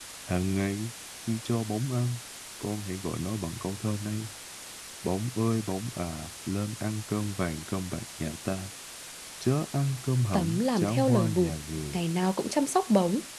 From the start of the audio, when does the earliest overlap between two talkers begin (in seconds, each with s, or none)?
10.3 s